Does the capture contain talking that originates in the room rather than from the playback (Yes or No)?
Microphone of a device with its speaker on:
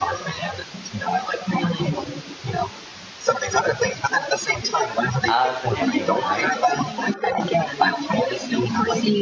Yes